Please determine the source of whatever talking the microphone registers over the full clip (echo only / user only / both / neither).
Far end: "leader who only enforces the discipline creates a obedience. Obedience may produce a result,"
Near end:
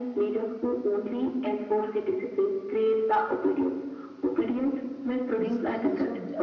both